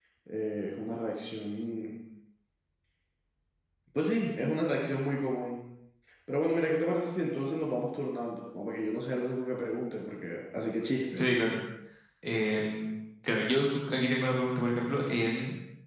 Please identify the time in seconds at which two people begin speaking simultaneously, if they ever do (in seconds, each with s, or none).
none